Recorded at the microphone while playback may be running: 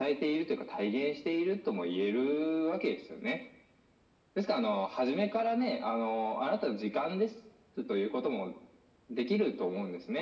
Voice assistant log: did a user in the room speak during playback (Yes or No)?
No